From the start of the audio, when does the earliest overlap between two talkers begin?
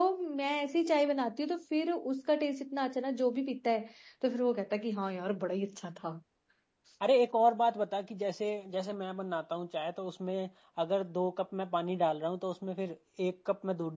none

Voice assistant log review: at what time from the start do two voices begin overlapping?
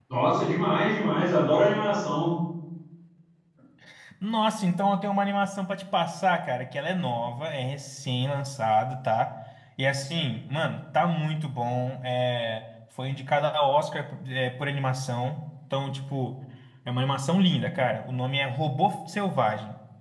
none

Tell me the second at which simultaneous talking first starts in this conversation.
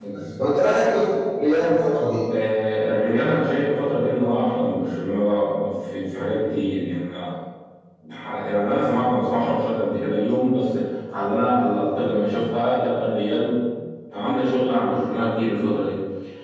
none

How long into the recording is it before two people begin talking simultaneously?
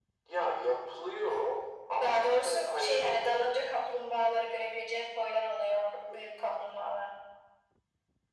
2.0 s

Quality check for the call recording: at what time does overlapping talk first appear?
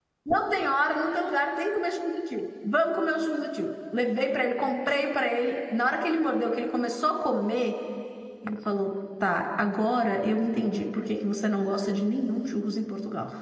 none

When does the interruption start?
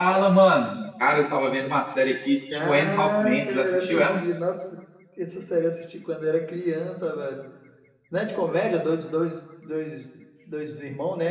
2.5 s

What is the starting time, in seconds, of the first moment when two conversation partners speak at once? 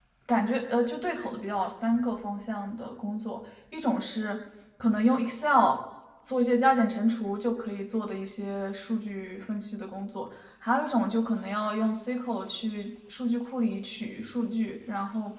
none

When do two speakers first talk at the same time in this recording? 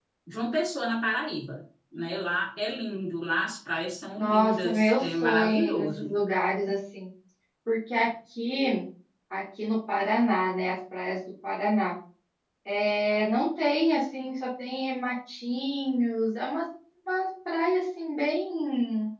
4.2 s

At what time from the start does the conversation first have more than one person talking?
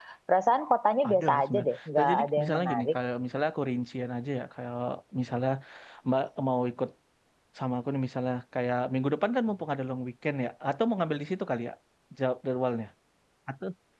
1.1 s

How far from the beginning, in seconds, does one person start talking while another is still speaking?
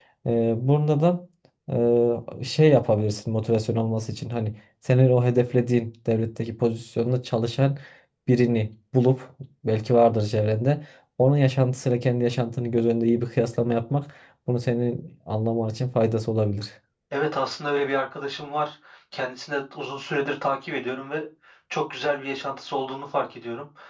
none

